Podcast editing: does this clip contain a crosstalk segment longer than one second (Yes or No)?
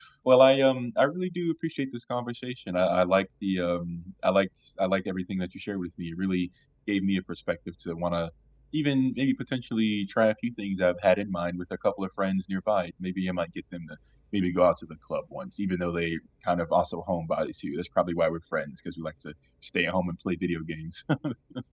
No